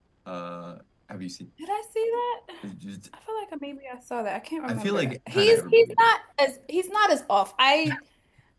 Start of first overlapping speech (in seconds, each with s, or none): 4.7 s